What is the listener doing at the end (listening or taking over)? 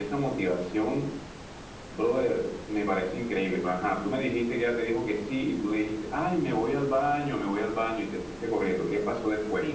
taking over